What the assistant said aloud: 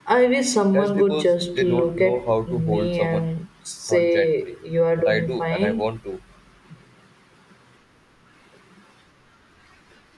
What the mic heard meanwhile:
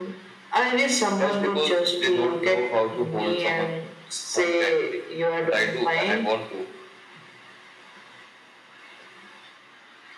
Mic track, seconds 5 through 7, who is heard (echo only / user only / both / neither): echo only